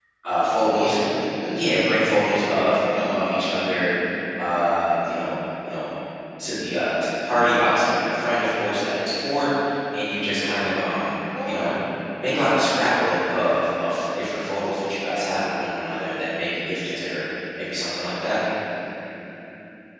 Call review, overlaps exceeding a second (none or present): none